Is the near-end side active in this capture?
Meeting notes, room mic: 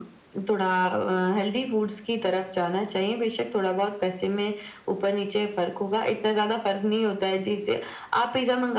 No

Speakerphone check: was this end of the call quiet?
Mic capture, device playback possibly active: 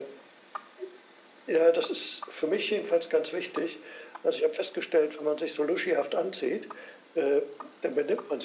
Yes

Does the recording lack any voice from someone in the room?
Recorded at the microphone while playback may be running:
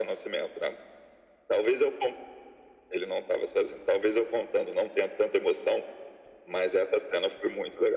Yes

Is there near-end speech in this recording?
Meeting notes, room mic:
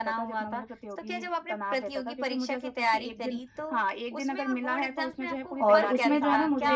Yes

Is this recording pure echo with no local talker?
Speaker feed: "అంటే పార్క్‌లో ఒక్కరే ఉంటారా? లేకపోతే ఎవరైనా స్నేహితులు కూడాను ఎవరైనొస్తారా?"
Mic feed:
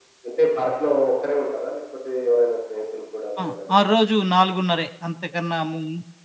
No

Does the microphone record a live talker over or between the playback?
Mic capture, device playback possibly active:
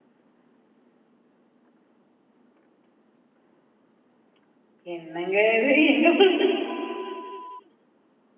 Yes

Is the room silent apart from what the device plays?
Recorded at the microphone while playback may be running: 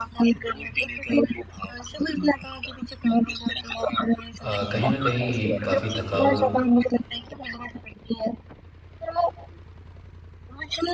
No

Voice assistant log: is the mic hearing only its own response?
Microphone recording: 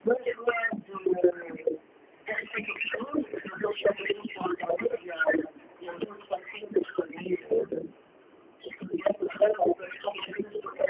Yes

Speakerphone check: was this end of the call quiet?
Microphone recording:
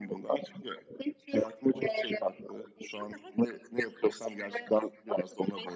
Yes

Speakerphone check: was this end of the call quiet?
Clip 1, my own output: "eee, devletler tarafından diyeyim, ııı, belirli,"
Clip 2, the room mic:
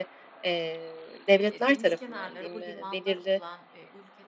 No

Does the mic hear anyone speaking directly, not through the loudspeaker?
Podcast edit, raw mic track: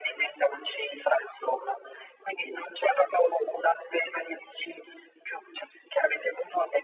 No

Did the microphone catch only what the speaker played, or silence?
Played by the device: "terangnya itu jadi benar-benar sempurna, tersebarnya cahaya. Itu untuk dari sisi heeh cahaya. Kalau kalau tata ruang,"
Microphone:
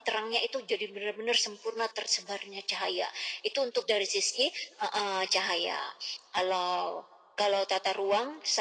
Yes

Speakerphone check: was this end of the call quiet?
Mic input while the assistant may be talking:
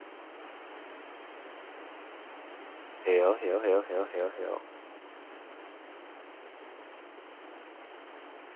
No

